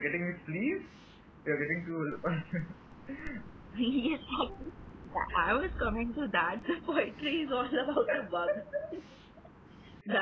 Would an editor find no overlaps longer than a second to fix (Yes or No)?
Yes